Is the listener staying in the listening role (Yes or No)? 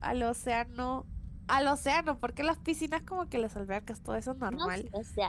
No